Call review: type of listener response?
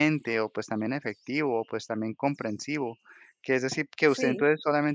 listening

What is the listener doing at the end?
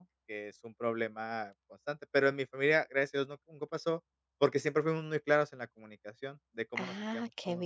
taking over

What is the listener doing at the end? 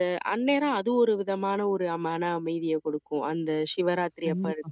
listening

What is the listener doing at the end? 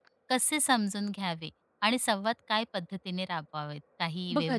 taking over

